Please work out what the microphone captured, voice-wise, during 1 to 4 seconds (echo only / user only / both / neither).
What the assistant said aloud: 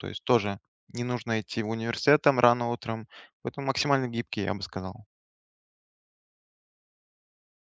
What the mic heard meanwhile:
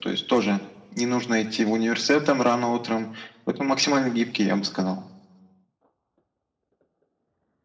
echo only